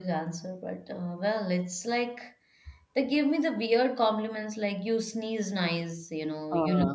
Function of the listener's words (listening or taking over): listening